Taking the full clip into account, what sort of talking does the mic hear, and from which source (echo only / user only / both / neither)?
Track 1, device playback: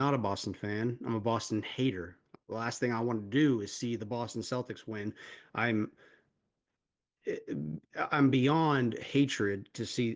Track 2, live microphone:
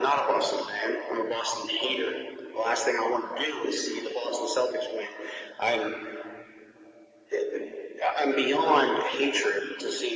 echo only